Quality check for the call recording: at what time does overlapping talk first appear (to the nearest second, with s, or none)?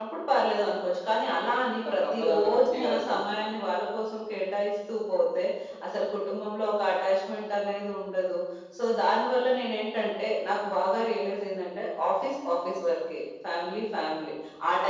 2 s